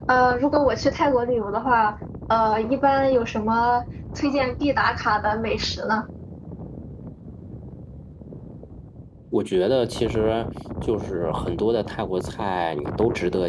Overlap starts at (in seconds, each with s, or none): none